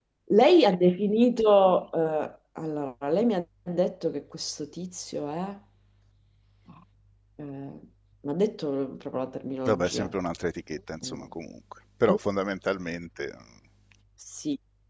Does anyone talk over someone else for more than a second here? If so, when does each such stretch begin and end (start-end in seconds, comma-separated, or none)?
none